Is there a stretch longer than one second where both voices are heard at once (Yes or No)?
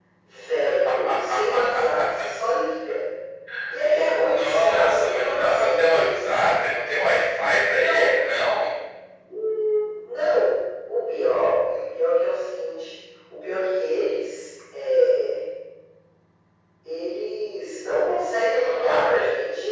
Yes